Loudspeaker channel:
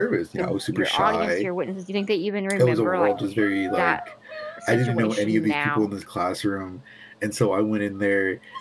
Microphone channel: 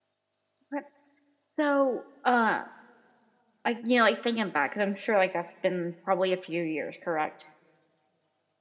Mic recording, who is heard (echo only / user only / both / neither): user only